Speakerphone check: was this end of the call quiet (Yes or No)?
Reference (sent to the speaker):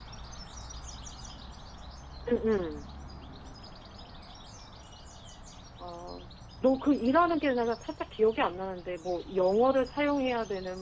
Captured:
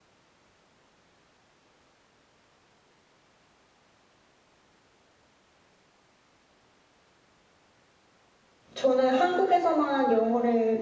No